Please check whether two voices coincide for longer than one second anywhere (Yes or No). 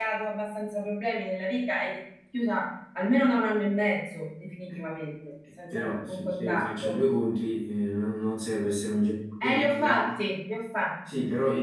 Yes